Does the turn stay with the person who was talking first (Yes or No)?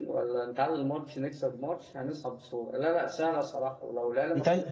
Yes